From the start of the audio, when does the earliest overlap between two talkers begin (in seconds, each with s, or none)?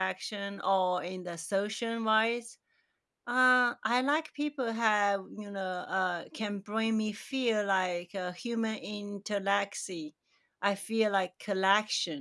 none